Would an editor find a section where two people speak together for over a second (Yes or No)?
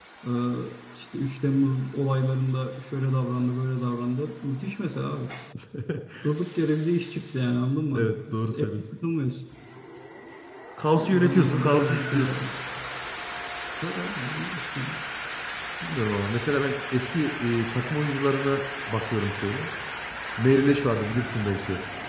Yes